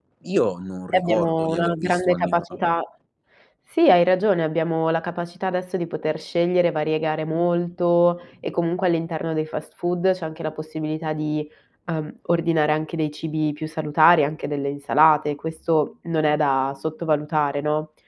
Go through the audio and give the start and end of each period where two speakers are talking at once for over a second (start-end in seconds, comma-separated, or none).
0.9-2.4